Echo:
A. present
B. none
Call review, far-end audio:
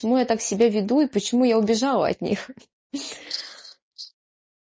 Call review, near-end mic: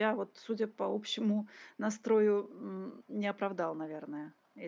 B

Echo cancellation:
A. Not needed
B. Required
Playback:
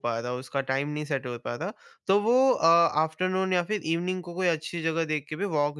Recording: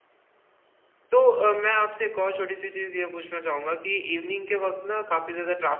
A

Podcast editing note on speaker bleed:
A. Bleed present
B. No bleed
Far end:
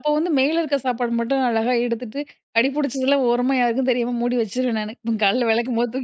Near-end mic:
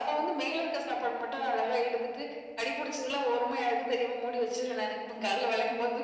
A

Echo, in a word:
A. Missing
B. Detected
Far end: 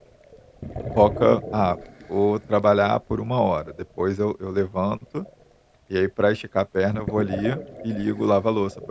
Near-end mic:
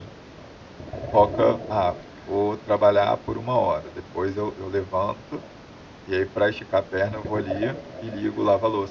B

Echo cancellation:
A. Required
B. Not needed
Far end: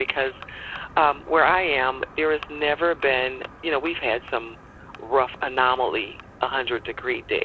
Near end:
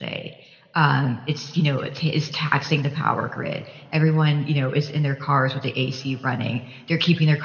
B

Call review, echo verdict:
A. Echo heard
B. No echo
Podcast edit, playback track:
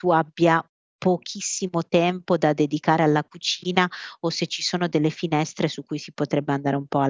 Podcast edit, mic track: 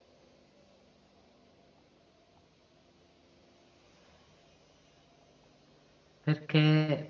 B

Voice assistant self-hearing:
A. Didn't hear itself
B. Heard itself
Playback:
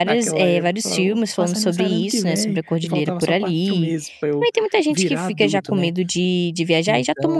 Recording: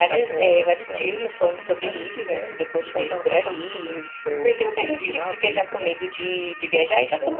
B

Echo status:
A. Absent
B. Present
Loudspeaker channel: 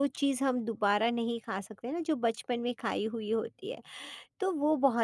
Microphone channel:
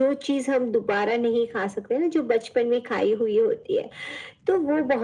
B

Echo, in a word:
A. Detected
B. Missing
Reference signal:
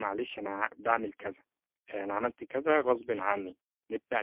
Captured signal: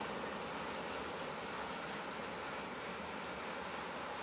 B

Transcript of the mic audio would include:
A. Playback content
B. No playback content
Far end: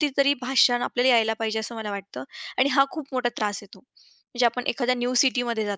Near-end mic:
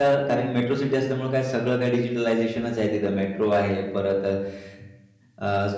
B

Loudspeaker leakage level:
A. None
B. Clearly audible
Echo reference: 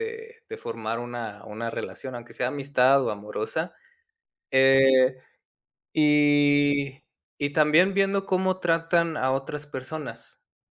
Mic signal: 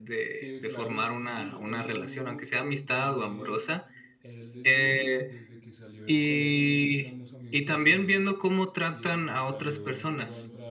B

